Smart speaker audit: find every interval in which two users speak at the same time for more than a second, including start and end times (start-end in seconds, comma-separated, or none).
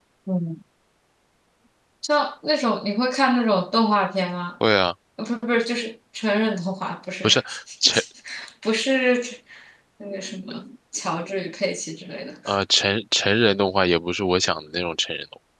none